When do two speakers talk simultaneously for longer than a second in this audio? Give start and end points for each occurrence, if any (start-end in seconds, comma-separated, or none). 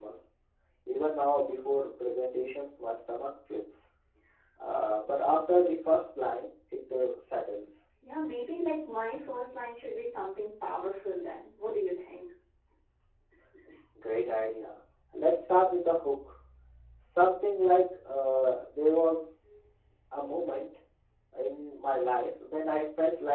none